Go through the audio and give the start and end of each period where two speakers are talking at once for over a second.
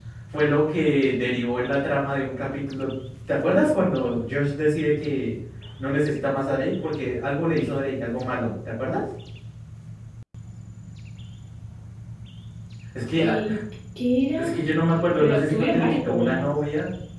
15.2-16.5

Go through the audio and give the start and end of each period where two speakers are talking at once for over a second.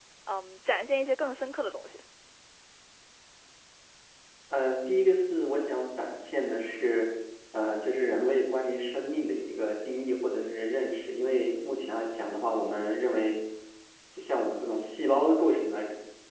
none

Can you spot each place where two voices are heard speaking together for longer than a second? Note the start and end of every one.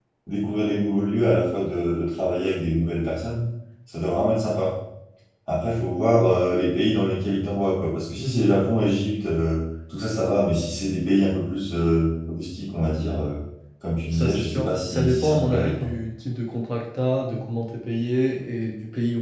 14.1-15.9

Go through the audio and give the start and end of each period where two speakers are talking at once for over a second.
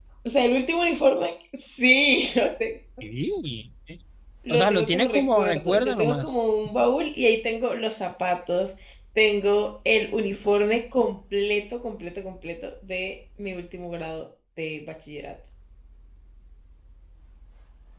4.5-6.3

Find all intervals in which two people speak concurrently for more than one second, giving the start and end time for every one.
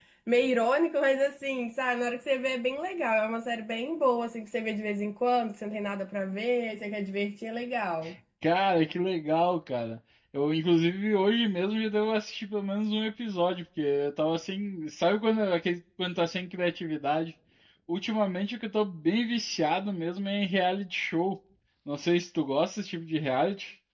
none

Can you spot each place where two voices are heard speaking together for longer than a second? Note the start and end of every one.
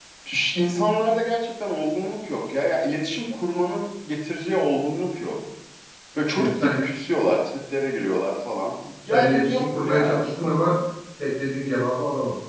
9.1-10.8

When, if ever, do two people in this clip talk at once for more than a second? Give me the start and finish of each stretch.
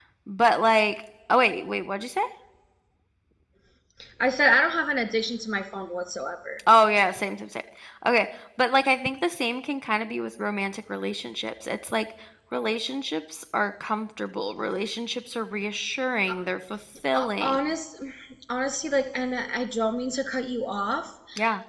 none

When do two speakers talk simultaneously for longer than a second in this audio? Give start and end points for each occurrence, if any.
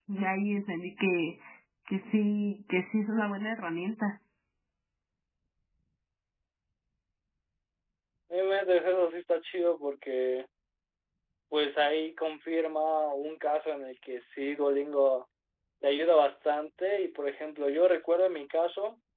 none

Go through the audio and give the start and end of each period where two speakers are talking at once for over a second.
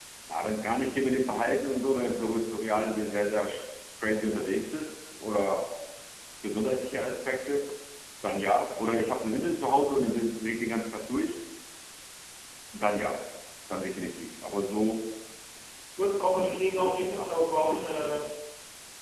16.4-18.2

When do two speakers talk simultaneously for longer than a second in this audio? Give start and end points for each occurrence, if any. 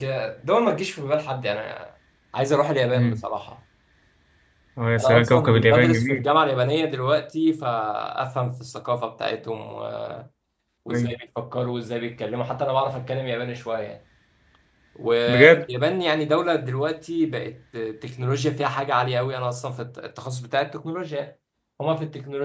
5.0-6.2

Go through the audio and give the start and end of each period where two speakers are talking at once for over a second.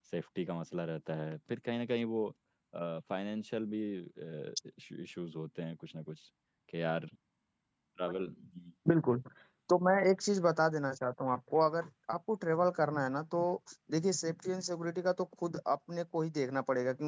none

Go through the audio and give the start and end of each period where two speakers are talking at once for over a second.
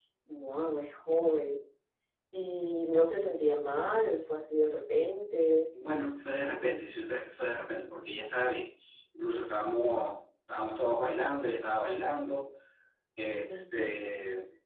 none

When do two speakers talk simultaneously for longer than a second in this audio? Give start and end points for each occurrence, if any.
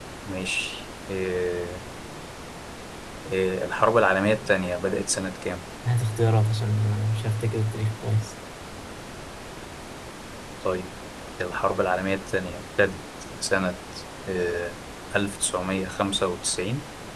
none

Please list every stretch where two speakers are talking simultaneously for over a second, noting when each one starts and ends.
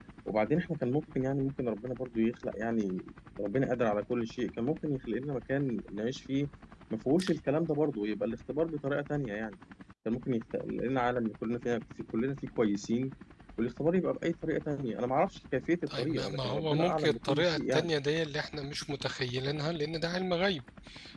15.9-17.9

